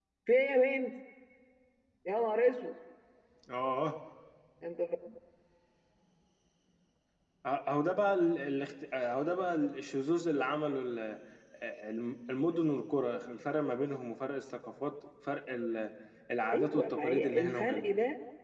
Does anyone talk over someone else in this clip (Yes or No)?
Yes